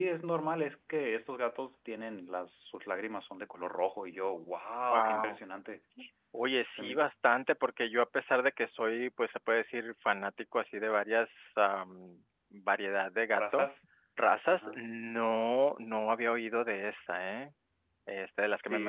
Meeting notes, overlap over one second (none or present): none